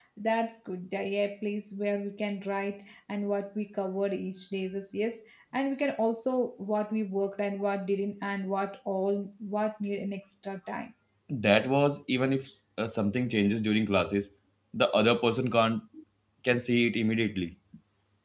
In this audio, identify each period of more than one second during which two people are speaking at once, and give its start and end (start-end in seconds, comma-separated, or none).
none